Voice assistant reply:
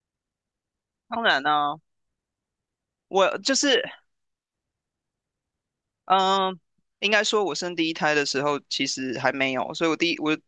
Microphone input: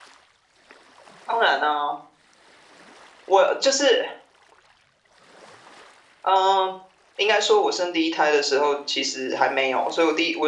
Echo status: present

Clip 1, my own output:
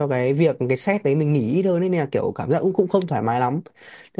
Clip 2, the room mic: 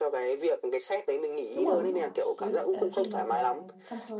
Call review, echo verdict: present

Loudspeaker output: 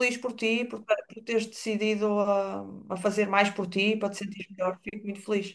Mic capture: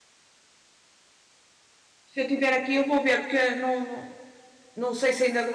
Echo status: none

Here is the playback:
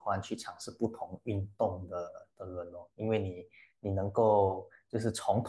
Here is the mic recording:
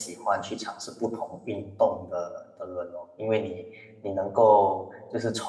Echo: present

